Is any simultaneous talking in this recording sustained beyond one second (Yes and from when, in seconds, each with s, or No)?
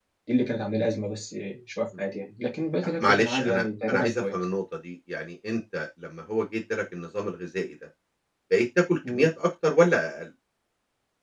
Yes, from 2.8 s